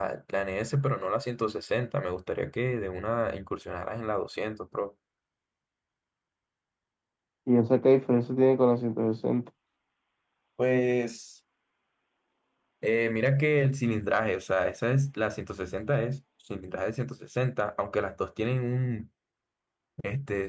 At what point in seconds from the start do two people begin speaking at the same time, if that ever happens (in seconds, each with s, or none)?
none